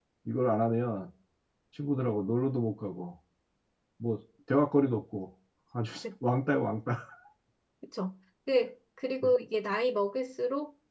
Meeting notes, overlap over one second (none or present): none